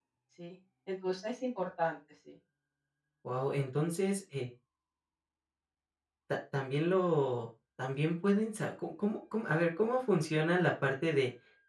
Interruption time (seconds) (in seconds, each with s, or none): none